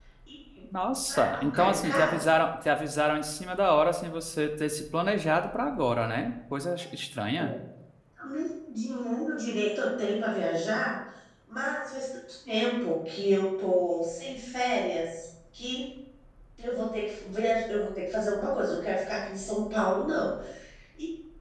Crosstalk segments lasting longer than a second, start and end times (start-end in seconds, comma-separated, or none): 1.1-2.3